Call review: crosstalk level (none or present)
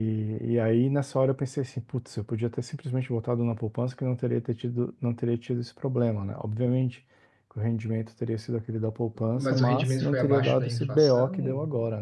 present